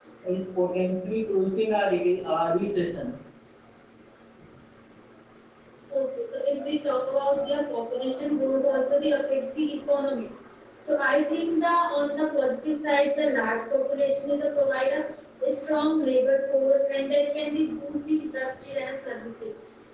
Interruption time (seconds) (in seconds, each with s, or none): none